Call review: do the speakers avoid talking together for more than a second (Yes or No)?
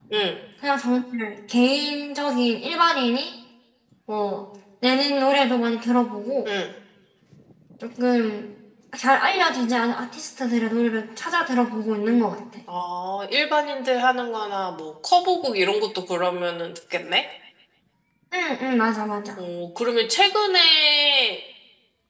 Yes